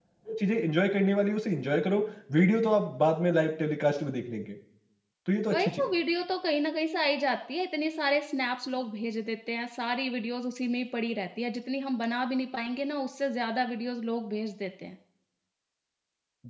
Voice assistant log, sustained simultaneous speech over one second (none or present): none